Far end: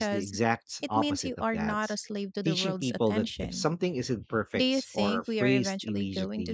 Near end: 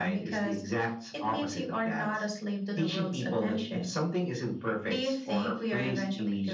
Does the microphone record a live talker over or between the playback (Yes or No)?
No